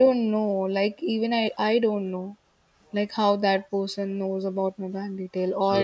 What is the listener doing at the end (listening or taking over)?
listening